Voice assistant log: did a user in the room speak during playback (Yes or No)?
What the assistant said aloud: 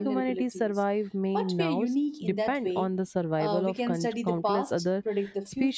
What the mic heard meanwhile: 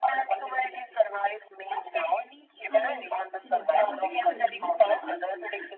Yes